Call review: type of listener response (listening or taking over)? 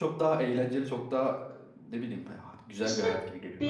taking over